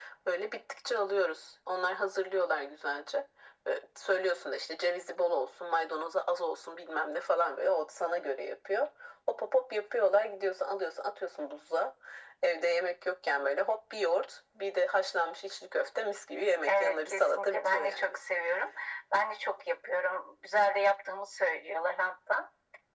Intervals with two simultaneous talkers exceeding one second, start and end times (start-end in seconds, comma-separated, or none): 16.7-18.2